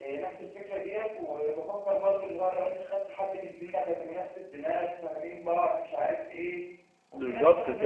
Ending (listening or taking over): listening